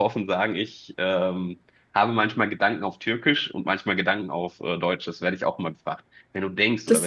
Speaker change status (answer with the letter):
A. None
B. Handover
A